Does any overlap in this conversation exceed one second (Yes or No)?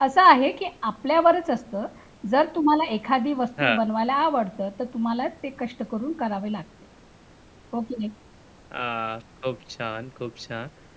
No